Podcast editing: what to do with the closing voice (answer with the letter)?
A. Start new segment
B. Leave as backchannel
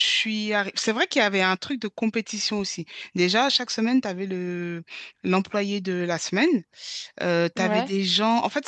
B